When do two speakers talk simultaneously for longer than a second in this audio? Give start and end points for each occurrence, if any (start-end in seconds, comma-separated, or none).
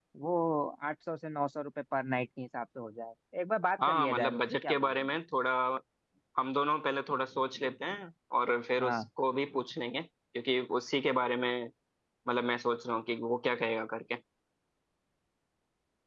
3.9-5.1